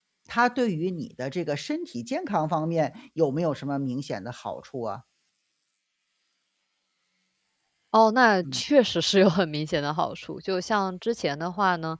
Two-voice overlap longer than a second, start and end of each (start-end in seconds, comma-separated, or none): none